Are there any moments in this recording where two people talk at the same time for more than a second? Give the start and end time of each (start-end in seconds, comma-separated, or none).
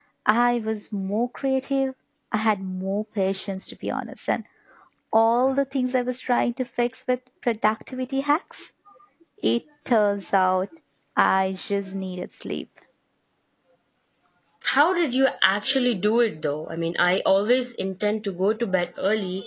none